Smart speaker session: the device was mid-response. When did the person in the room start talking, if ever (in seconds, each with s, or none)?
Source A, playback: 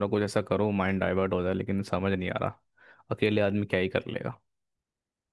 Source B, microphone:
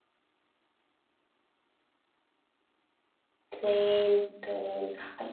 3.5 s